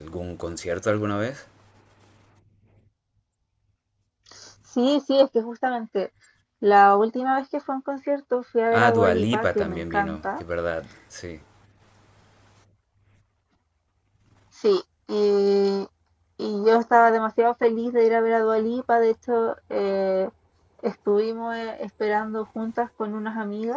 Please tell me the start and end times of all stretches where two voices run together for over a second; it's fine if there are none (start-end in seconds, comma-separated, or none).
8.7-10.4